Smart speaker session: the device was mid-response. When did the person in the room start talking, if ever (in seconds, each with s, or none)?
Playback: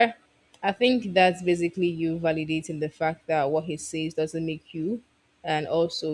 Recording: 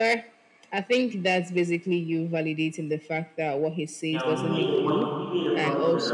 4.1 s